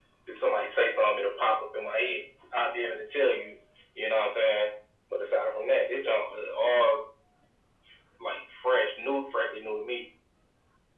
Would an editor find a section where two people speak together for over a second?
No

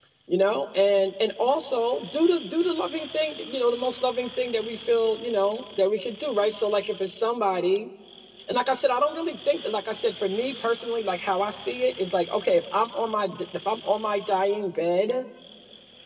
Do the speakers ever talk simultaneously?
No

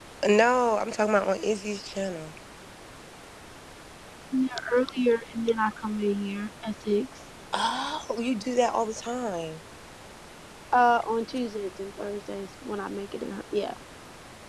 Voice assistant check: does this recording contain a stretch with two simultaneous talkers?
No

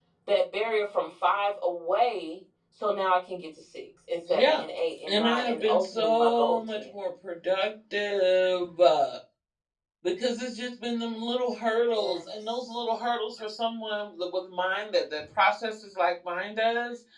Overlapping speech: Yes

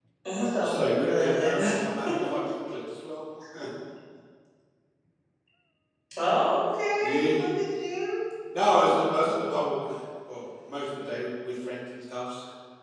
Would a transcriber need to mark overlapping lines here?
Yes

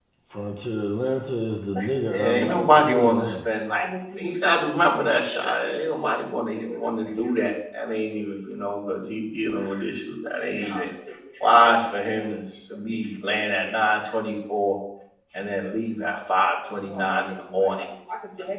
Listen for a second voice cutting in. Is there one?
Yes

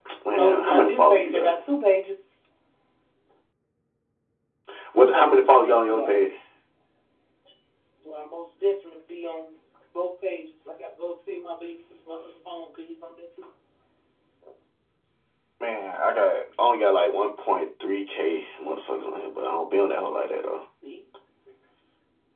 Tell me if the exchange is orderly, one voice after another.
No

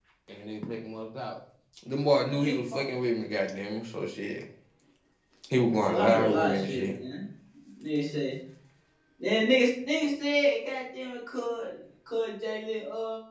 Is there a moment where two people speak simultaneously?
Yes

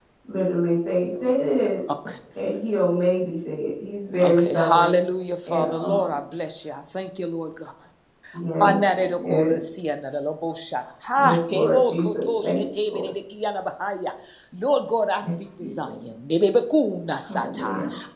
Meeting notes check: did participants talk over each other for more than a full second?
Yes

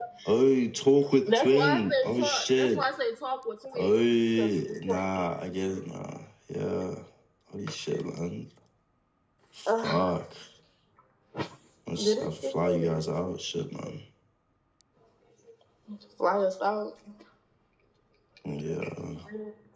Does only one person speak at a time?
No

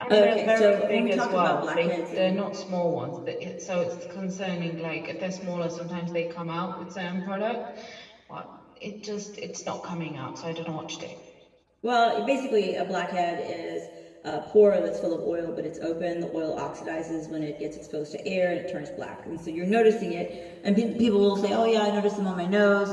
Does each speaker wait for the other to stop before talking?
No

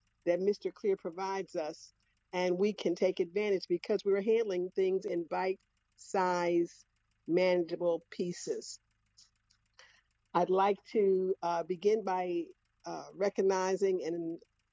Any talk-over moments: No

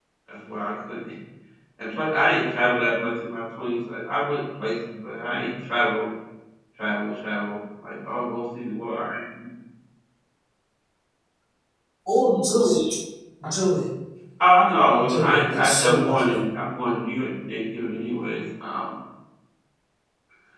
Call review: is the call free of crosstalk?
No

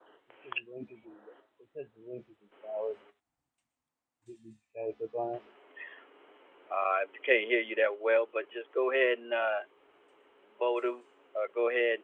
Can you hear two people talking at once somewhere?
No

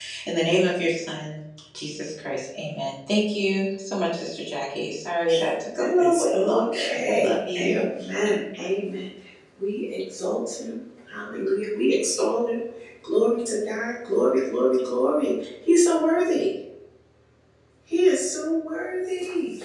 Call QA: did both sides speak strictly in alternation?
No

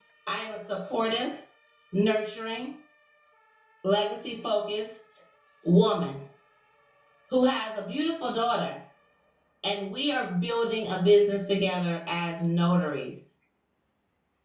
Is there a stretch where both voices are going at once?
No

